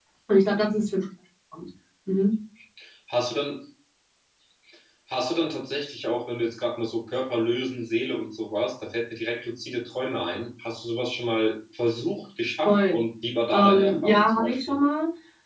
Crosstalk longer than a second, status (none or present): present